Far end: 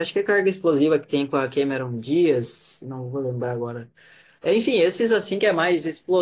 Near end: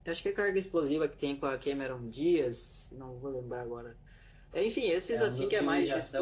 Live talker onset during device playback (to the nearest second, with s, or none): 5 s